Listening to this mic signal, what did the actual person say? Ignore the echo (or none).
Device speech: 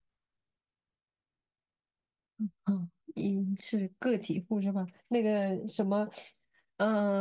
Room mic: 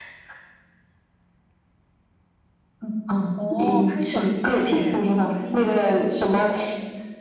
哦，拍短片哎，好厉害哦！